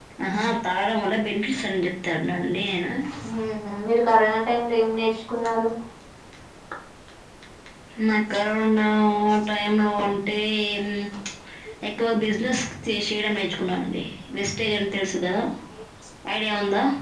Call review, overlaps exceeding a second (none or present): none